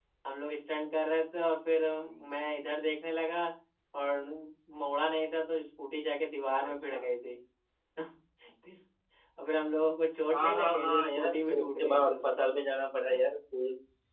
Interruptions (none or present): present